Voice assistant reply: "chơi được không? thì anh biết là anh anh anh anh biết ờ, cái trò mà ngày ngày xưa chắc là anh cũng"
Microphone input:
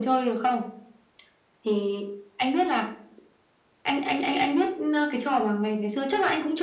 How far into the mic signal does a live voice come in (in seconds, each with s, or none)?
none